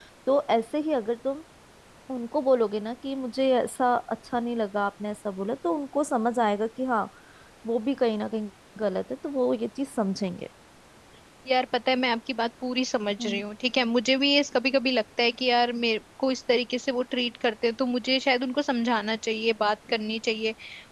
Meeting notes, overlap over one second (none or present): none